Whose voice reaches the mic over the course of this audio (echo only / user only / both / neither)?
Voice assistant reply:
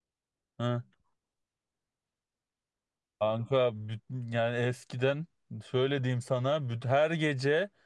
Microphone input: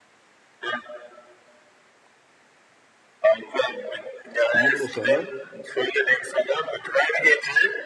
both